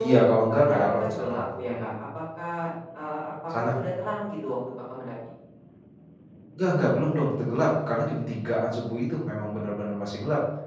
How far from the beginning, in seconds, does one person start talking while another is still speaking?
0.5 s

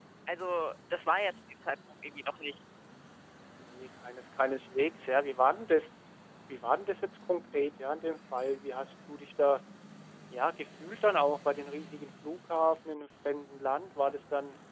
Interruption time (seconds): none

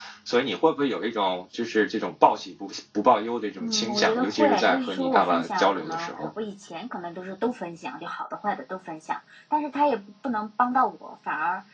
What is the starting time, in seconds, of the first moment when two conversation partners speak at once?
3.6 s

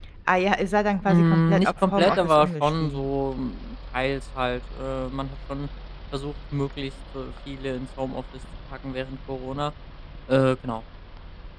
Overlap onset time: 1.1 s

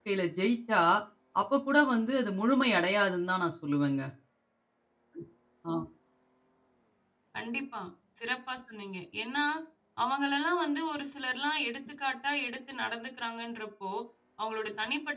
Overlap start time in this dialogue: none

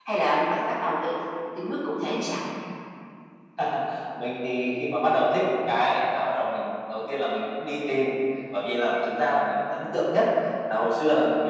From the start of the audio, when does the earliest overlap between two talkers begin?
none

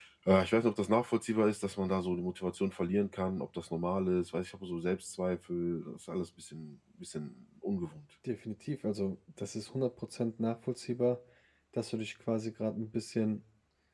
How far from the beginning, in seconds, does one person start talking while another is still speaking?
none

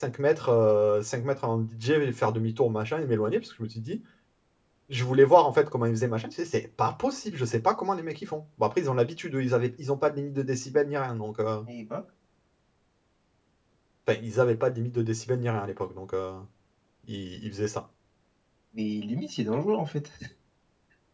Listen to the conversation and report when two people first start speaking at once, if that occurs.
none

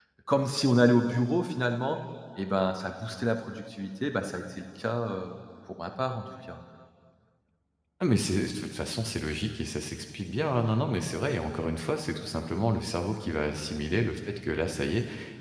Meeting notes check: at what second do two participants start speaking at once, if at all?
none

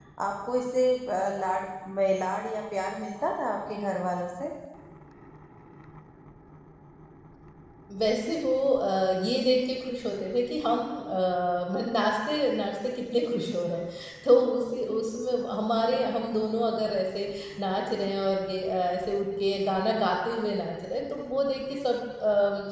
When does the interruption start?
none

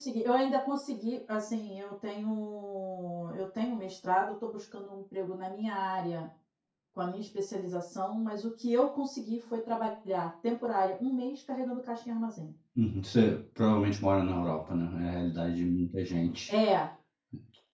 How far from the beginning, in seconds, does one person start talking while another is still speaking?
none

